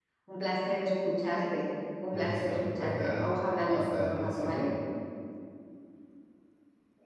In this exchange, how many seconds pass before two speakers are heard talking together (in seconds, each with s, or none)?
2.1 s